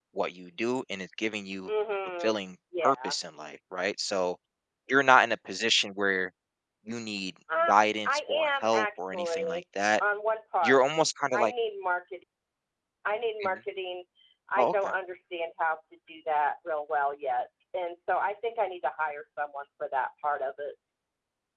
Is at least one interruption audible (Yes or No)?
Yes